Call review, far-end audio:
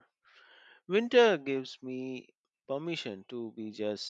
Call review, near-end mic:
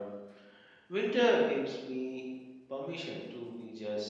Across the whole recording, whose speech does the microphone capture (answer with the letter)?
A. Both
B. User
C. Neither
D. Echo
D